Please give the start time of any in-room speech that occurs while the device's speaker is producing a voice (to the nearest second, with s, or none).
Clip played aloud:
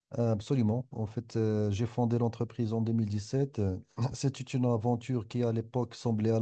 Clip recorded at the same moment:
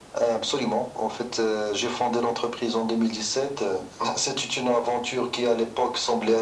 none